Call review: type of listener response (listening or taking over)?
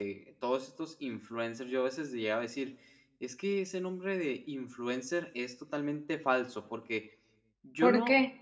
listening